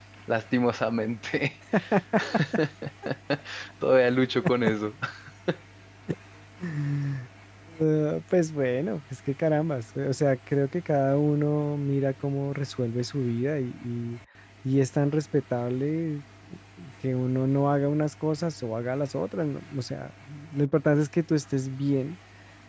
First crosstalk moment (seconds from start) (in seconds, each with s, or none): none